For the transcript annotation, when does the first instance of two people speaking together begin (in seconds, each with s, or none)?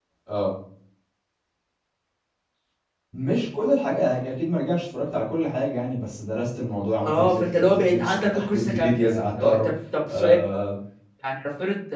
7.0 s